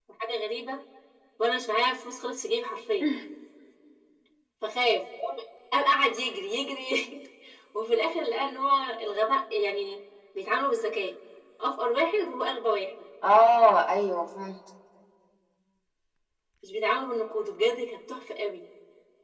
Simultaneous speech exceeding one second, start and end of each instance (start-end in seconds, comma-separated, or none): none